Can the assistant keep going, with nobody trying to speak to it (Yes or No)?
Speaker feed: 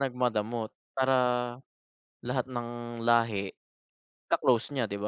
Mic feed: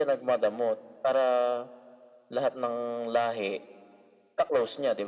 Yes